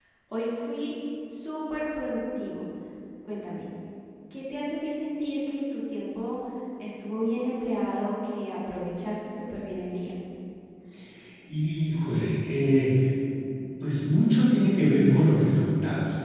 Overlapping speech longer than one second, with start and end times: none

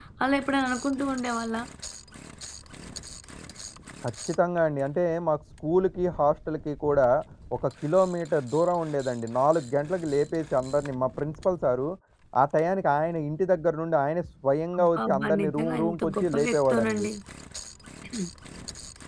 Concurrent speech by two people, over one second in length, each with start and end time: 14.8-17.1

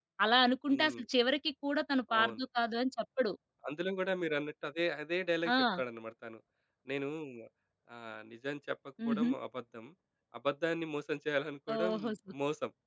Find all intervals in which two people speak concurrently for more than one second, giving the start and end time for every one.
none

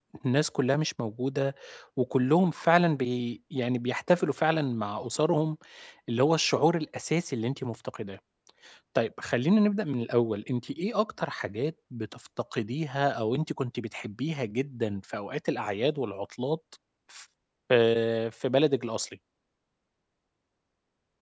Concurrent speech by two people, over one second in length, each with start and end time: none

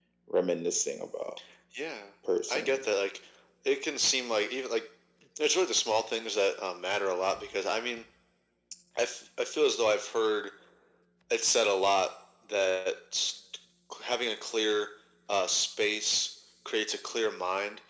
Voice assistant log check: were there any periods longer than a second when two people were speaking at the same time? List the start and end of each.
none

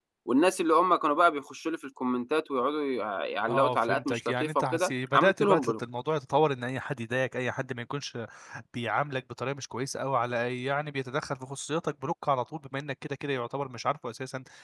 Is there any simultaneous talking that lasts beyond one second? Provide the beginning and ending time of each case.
3.5-5.7

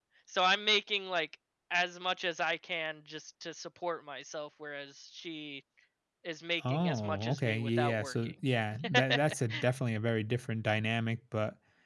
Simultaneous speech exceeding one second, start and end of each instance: 6.7-8.3

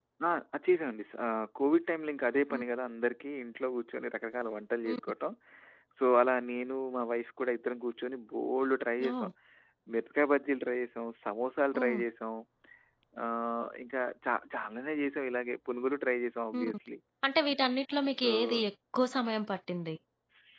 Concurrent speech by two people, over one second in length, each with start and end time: none

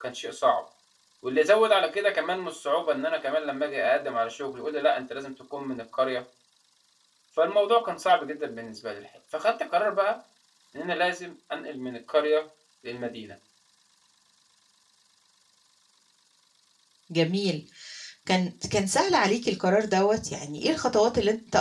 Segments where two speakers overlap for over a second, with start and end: none

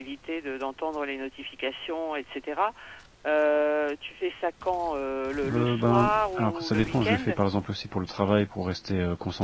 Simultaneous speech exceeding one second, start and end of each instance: 5.4-7.2

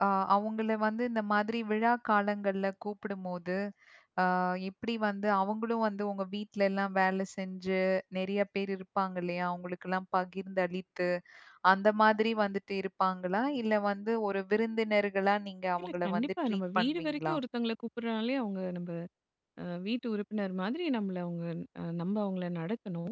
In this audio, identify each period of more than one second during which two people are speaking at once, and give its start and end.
15.8-17.3

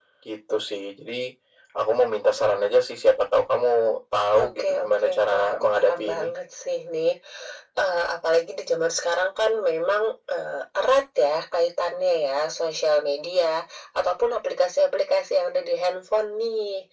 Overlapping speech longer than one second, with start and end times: 4.3-6.3

